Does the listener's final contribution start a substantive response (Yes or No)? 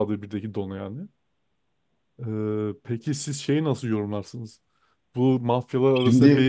No